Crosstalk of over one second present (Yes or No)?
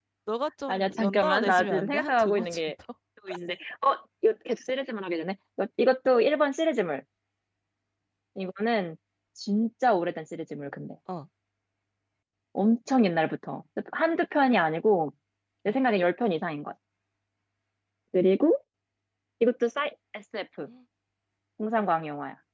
Yes